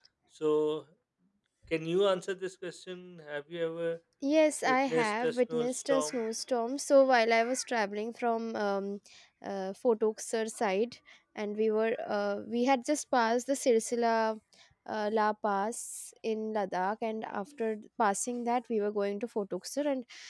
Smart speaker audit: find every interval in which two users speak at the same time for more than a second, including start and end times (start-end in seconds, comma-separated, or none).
4.6-6.1